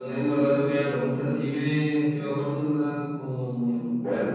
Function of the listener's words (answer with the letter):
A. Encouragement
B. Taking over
A